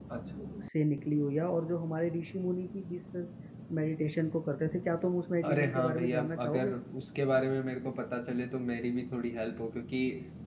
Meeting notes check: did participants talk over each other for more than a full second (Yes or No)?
Yes